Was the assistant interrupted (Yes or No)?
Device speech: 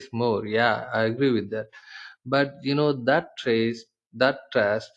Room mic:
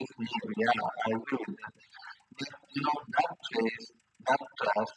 No